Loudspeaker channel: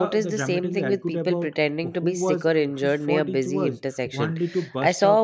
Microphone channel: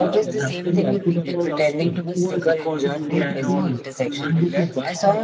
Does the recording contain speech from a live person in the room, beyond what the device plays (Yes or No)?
Yes